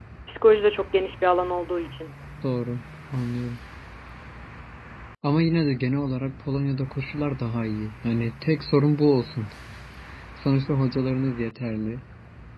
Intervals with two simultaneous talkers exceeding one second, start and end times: none

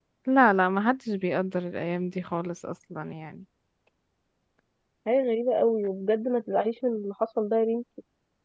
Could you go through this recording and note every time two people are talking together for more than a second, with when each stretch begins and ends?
none

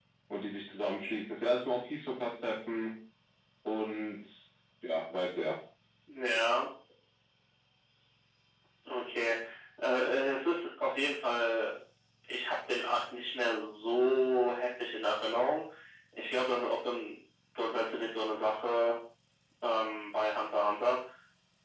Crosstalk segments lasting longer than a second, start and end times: none

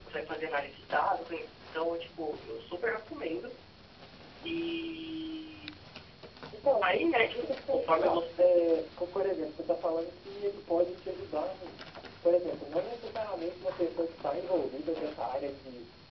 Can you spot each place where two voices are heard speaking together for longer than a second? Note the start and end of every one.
6.8-8.5

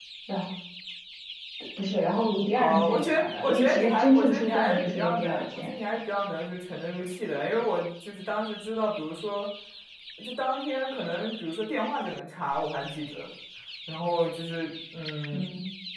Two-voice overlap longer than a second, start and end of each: 2.5-5.8

